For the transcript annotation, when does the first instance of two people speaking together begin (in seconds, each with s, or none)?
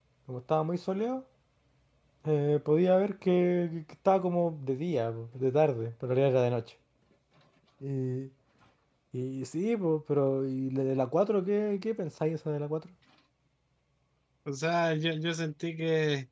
none